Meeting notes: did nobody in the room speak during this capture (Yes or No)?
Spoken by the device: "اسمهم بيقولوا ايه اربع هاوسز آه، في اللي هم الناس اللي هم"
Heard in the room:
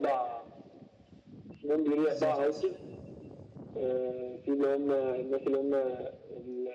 No